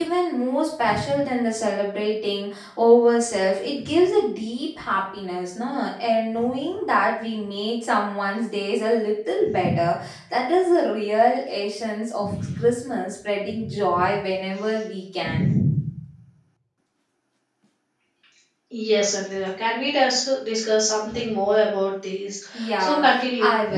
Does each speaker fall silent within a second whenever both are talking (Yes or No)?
Yes